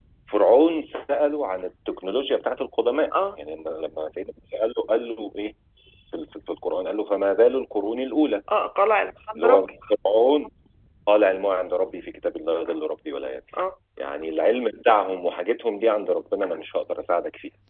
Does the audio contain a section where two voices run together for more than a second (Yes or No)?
No